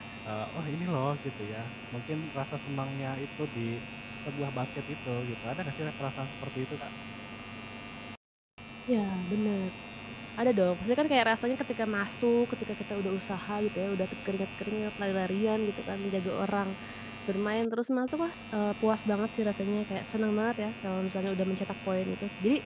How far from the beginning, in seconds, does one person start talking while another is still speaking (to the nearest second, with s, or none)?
none